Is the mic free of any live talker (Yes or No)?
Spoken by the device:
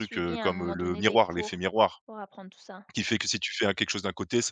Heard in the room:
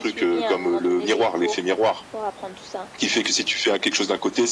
Yes